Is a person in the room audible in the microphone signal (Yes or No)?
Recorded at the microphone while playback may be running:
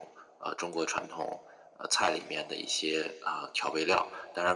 No